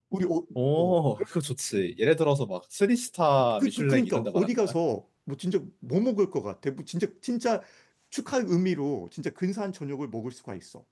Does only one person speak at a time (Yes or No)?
No